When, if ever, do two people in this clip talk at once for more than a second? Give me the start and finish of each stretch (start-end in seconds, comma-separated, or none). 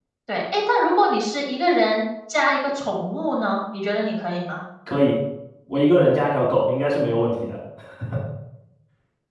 none